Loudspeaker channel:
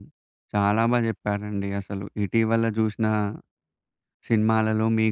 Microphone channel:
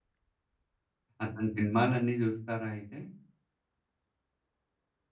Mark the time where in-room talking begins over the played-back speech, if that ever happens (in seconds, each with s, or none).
1.2 s